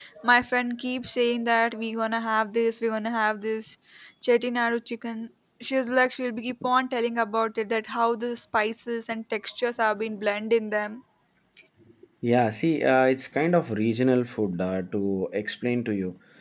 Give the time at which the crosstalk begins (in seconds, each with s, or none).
none